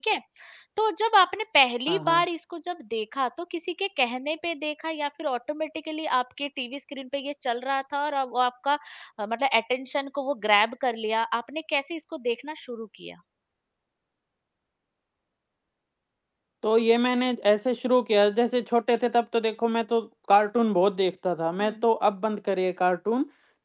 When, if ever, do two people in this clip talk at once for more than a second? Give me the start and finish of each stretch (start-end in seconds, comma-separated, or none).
none